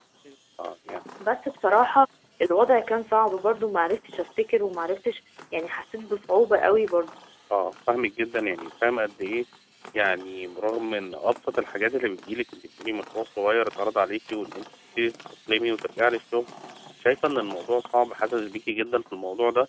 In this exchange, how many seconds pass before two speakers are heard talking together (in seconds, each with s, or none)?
none